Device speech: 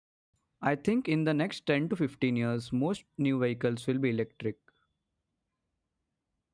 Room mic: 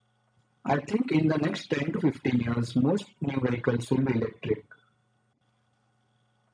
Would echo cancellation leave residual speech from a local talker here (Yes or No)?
No